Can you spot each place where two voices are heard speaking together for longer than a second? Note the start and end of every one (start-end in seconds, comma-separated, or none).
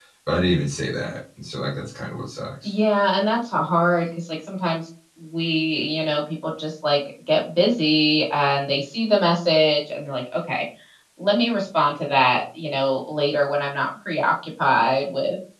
none